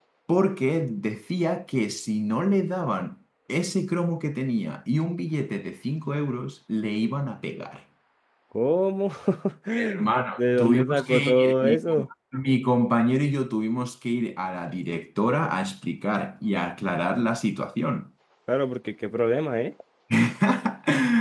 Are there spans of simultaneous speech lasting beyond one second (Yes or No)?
Yes